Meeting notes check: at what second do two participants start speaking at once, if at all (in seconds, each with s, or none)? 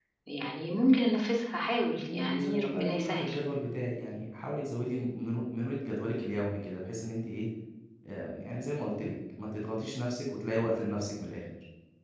2.0 s